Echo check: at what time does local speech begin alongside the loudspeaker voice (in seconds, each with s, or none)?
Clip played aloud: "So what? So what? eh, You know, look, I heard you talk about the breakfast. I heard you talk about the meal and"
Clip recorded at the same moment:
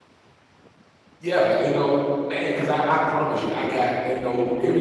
1.2 s